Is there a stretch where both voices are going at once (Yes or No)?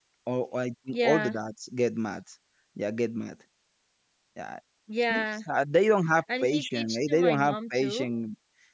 Yes